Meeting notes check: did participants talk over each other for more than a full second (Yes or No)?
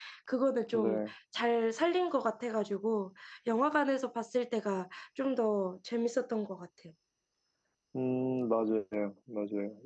No